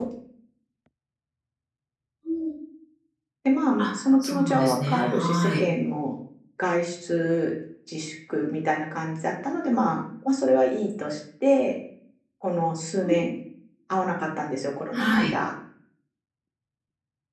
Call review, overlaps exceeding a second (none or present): present